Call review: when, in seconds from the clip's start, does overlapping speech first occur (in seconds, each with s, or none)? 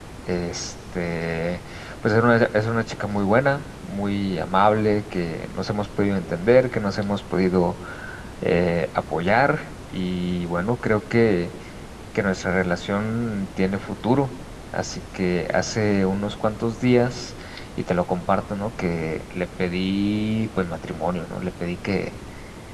none